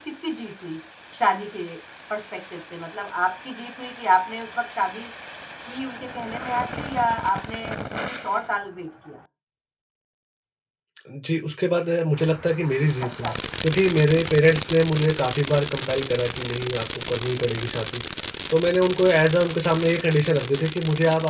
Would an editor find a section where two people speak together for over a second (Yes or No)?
No